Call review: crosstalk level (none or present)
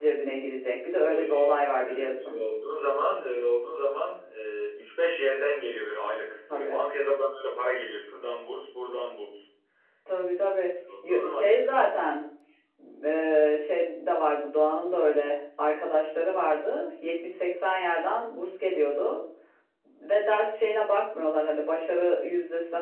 present